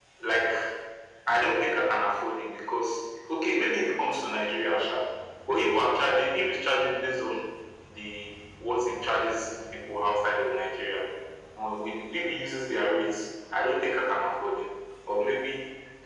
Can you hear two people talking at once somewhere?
No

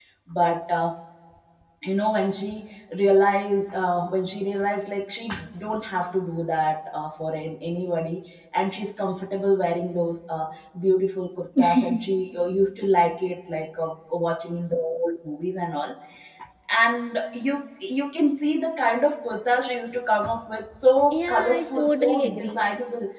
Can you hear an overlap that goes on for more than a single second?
Yes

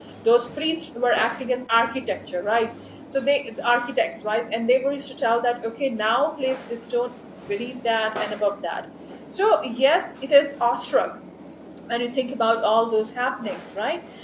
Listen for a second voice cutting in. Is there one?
No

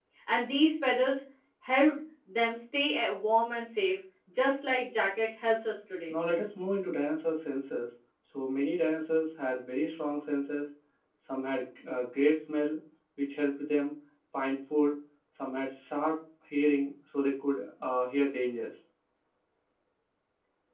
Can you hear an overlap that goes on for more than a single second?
No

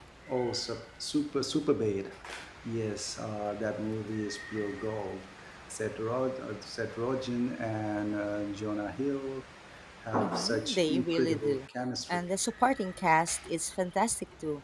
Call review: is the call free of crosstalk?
No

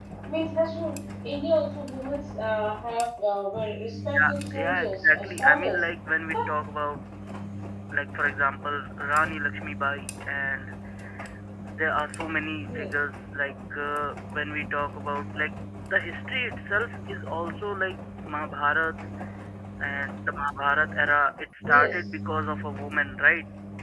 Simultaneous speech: Yes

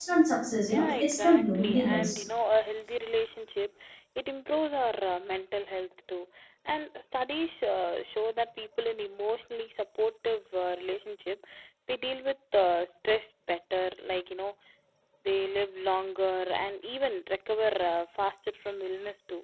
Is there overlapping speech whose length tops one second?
Yes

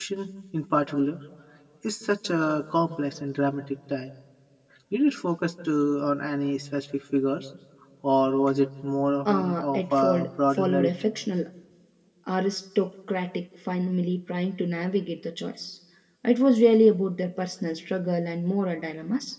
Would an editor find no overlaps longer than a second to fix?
No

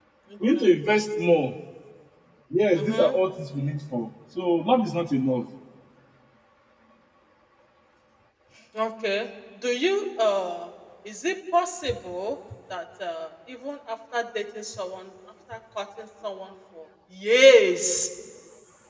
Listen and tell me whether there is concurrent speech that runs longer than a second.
No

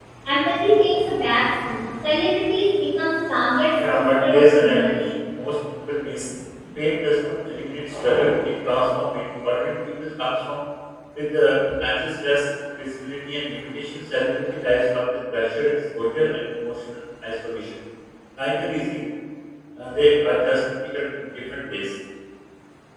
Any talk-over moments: Yes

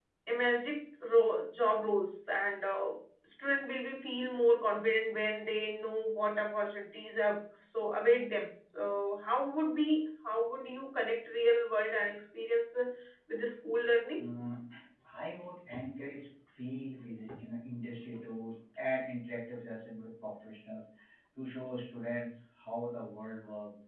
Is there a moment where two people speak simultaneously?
No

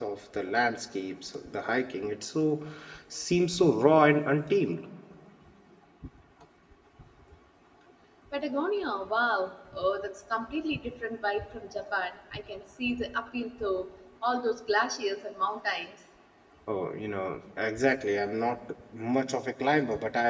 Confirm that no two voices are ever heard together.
Yes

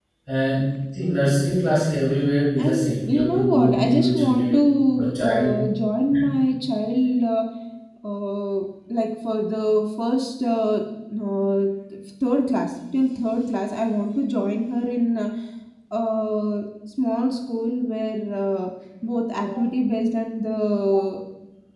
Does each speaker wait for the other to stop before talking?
No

